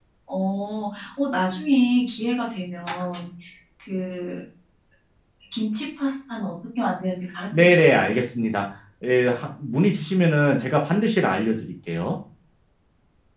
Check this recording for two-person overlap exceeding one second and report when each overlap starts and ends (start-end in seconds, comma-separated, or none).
none